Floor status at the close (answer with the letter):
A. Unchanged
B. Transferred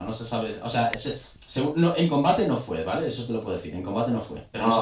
B